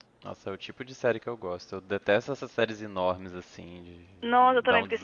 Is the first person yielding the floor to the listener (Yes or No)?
Yes